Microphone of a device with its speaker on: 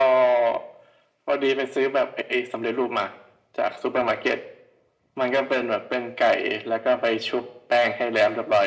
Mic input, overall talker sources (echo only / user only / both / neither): echo only